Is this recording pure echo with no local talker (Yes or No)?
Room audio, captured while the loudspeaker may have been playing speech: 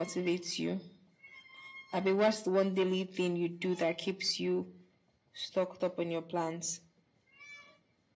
Yes